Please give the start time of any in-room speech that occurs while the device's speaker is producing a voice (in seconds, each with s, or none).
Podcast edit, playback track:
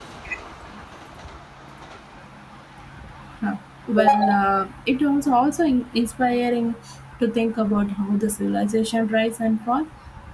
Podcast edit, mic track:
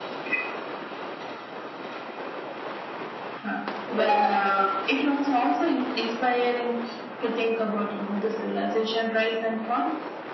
none